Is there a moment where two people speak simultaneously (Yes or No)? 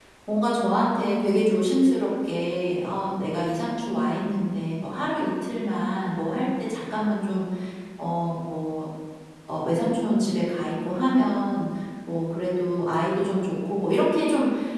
No